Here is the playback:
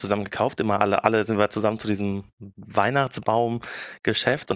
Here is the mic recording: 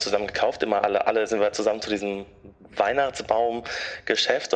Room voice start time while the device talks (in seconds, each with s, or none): none